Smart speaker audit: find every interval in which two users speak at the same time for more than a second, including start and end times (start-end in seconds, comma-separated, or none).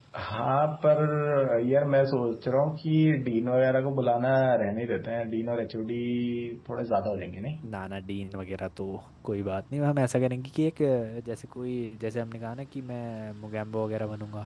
none